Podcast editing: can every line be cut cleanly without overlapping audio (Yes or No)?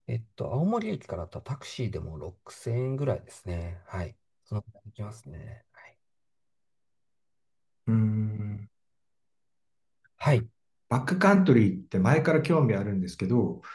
Yes